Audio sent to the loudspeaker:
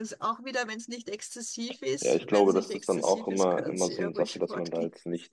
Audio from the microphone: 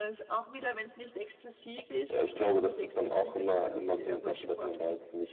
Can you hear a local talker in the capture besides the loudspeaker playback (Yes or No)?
No